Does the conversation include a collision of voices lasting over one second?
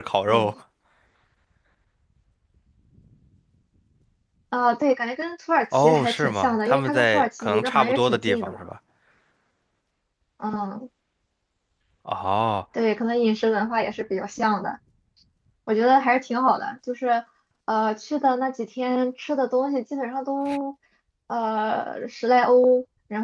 Yes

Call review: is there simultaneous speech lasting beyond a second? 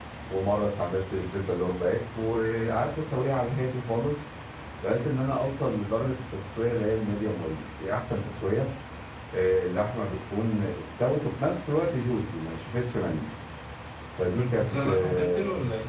Yes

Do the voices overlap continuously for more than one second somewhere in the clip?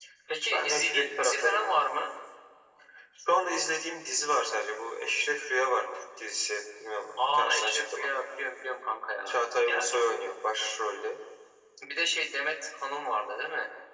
Yes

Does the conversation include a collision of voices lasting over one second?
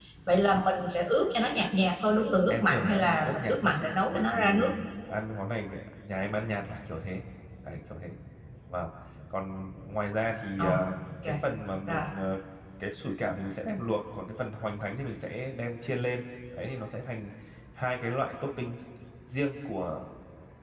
Yes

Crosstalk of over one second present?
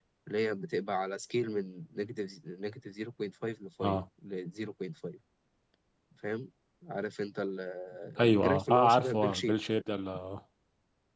Yes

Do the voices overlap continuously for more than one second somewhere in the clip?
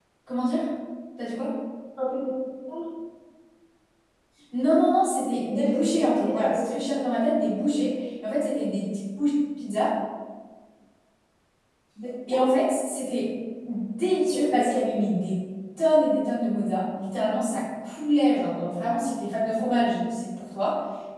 Yes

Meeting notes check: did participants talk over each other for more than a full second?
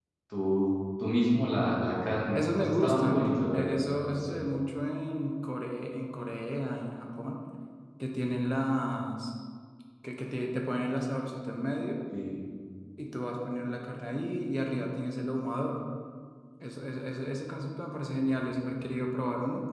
Yes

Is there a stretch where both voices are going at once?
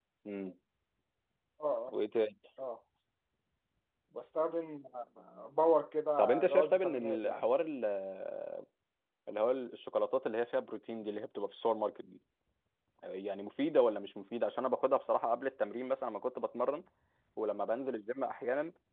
Yes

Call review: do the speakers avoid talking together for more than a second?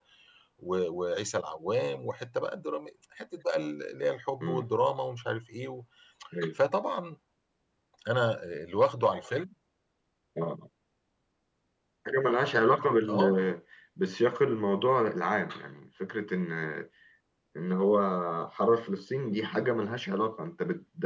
Yes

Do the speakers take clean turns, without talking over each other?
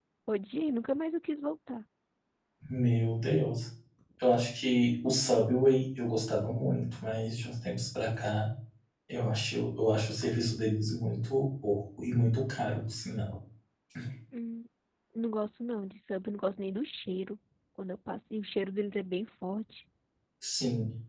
Yes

